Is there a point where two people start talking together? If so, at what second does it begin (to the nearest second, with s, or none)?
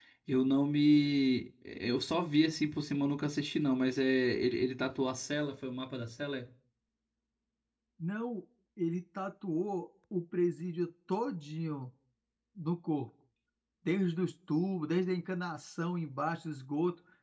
none